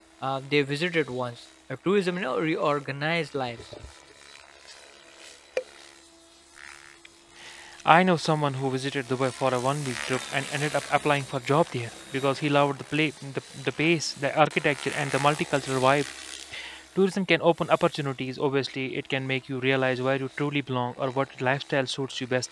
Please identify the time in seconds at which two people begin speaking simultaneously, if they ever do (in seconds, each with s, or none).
none